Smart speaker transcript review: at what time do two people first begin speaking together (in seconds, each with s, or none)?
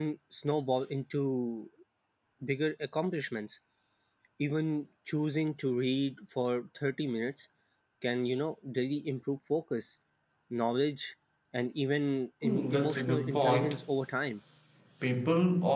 12.4 s